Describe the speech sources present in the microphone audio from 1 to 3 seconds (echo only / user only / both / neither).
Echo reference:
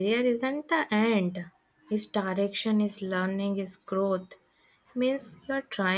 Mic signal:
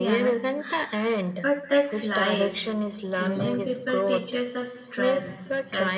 both